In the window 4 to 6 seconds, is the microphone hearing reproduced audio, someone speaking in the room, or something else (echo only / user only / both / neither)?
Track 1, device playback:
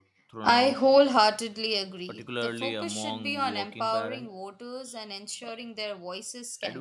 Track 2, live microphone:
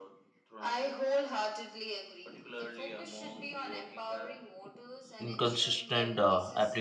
both